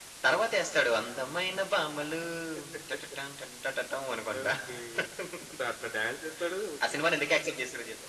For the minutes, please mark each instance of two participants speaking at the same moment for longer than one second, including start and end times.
none

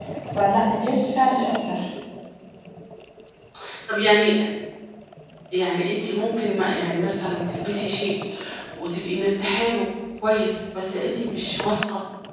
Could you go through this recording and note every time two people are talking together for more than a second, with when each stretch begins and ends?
none

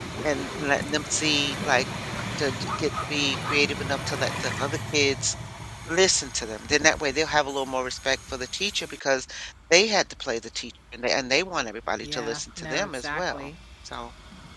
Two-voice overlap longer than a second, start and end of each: 12.0-13.5

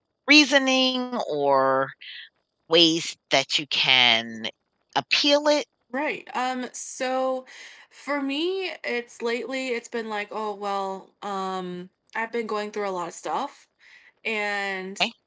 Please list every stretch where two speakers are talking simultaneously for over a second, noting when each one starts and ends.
none

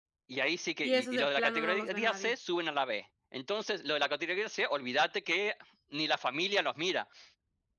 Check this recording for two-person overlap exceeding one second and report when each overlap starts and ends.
0.8-2.3

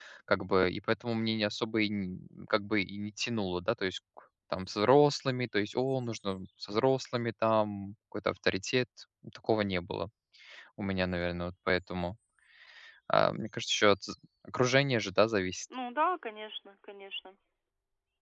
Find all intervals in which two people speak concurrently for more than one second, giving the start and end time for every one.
none

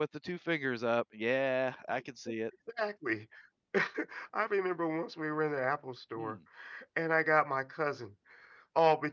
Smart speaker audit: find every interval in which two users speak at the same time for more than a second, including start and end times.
none

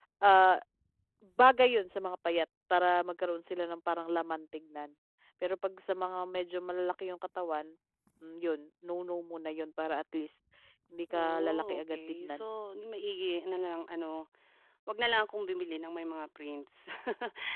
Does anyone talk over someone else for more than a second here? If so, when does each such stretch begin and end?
11.1-12.4

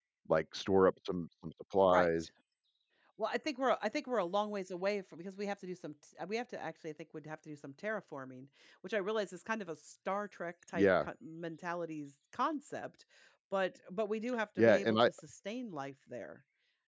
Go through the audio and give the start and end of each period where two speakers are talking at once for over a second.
none

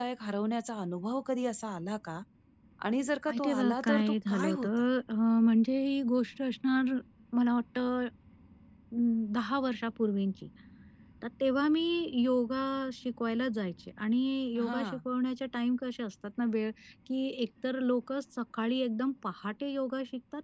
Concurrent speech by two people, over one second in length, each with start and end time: 3.3-4.7

